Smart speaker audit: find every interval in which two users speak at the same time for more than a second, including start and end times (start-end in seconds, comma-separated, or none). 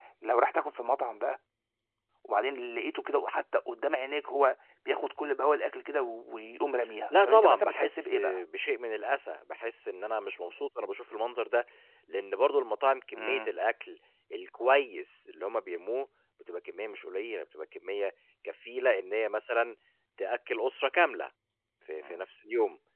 7.1-8.4